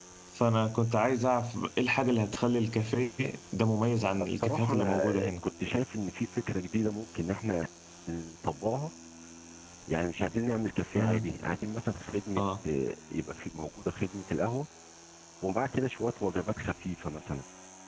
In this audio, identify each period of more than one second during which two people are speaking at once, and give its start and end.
4.0-5.3

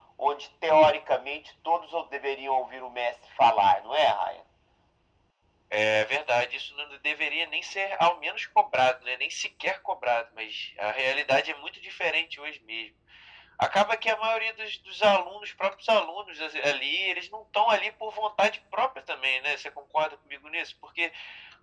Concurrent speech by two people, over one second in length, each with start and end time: none

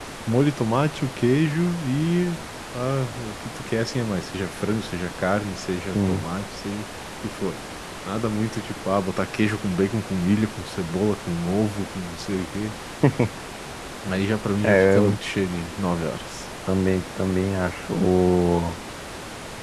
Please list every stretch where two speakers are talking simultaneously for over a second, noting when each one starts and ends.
none

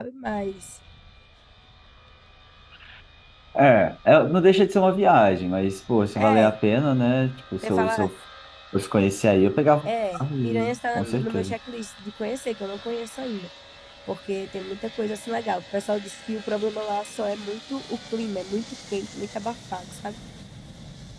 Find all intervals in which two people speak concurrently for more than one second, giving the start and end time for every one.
10.1-11.5

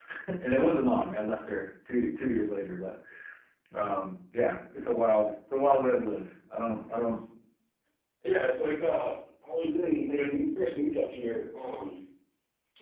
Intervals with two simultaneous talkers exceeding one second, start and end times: none

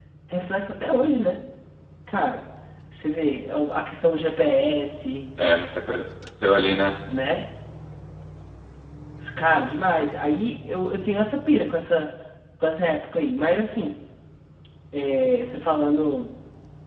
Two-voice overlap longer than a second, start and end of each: none

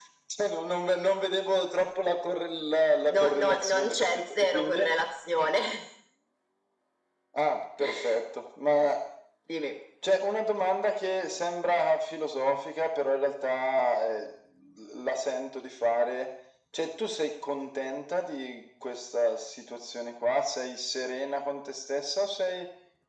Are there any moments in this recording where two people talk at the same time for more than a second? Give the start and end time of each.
3.2-4.8

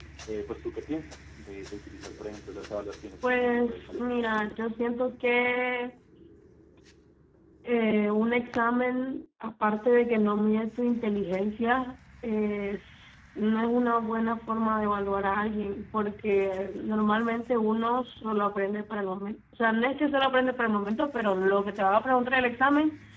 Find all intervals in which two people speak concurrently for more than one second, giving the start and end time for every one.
3.3-4.5

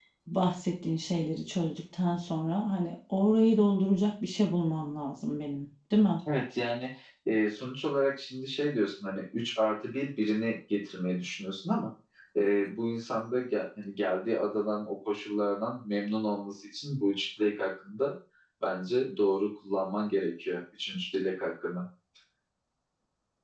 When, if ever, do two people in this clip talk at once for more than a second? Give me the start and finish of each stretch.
none

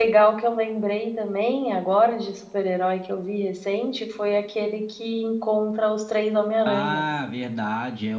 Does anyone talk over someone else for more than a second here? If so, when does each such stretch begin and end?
none

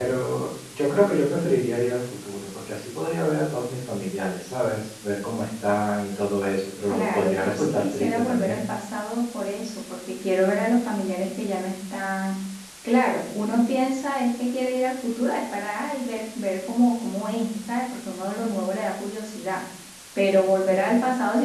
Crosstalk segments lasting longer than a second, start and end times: 6.9-8.6

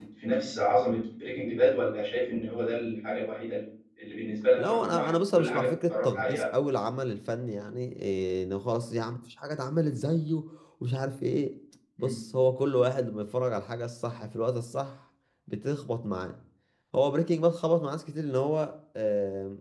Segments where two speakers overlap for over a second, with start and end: 4.6-6.4

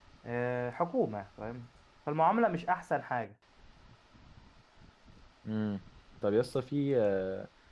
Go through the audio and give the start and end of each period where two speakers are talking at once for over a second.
none

